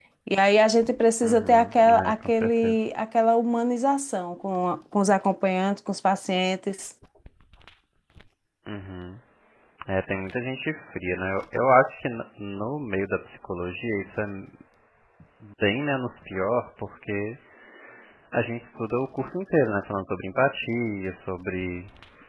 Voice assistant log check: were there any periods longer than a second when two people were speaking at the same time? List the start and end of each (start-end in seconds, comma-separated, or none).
1.2-2.8